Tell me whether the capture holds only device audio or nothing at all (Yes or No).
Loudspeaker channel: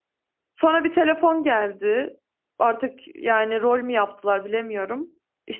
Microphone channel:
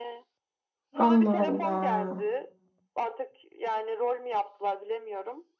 No